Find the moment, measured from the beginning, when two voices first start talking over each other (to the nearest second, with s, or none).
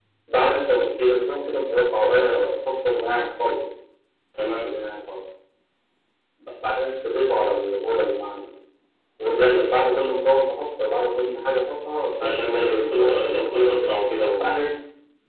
12 s